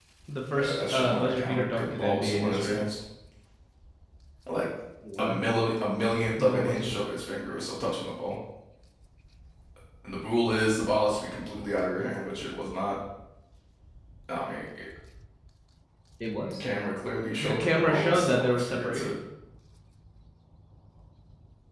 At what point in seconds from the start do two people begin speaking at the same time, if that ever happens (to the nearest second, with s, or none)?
1 s